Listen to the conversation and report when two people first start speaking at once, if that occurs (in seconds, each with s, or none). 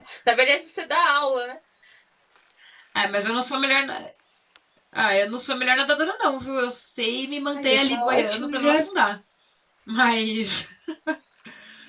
7.6 s